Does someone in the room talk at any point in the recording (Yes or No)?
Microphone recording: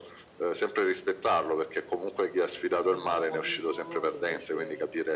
Yes